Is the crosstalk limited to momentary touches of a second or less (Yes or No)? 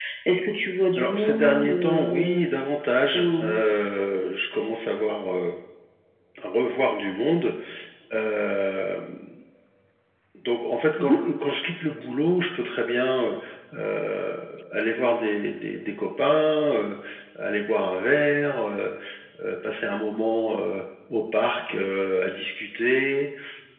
No